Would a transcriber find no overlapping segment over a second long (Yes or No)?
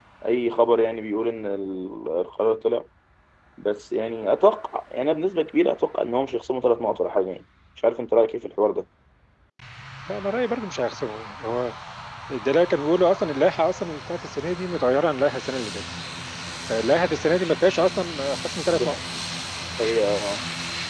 Yes